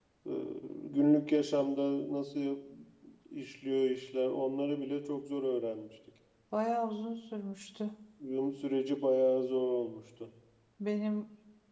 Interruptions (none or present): none